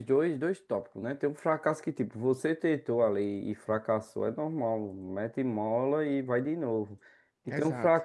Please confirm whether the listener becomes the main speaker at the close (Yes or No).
No